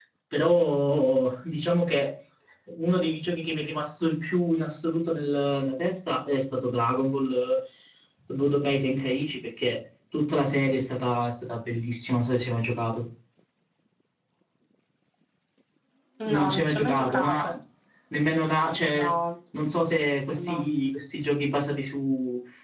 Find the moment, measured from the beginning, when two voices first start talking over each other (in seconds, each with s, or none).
16.2 s